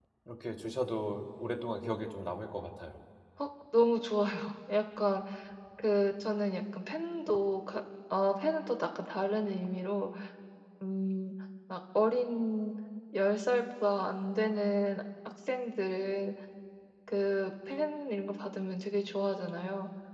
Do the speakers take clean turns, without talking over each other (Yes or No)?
Yes